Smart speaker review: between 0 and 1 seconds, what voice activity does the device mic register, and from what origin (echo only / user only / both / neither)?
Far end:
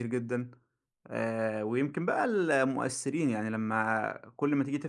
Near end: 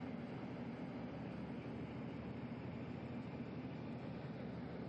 neither